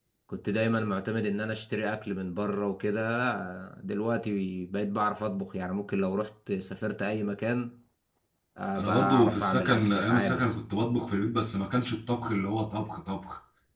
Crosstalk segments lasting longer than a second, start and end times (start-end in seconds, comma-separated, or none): 8.8-10.5